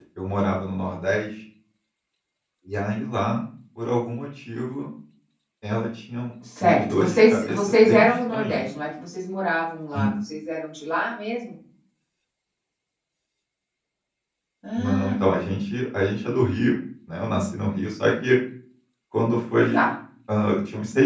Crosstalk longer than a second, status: present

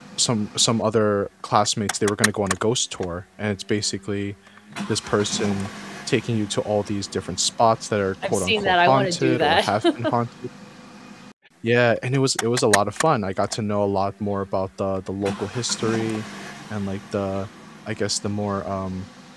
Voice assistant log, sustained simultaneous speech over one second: present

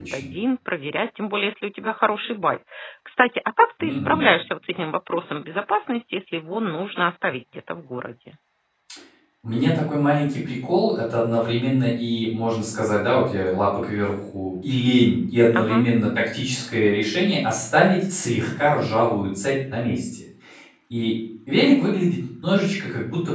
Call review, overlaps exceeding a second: none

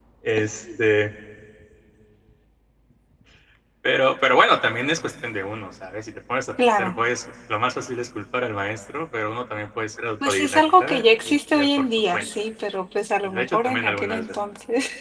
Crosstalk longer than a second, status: present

